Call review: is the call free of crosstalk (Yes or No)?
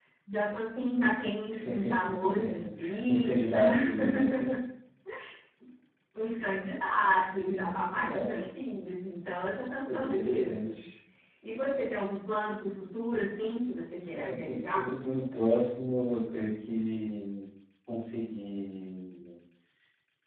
No